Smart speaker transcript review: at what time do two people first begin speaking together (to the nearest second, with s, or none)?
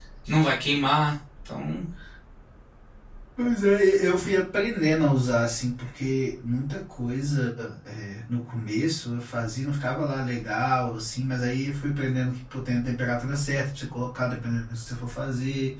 none